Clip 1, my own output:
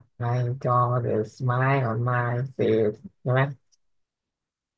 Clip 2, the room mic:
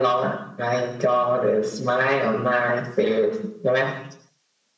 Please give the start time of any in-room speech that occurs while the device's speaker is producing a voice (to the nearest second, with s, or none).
none